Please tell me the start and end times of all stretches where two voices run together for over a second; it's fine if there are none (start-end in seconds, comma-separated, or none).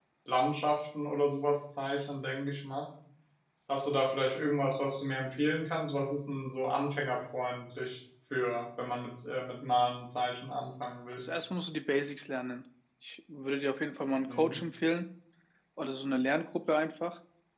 none